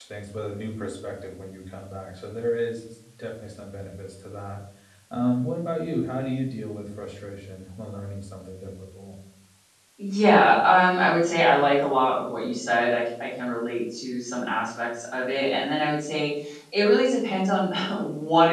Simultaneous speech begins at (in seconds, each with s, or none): none